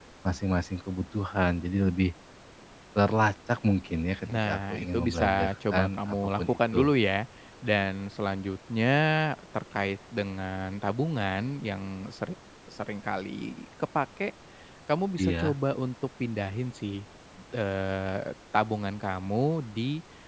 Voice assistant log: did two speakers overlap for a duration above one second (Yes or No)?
Yes